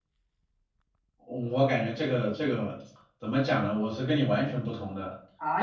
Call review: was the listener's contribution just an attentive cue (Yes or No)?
No